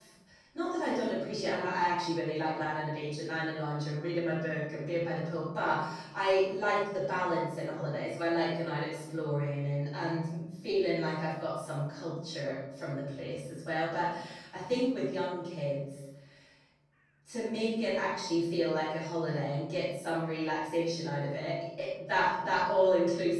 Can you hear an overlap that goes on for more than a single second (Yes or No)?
No